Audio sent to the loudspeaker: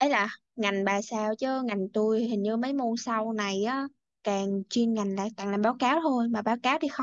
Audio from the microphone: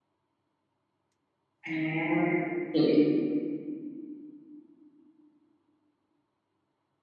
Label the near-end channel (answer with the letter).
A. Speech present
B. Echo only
A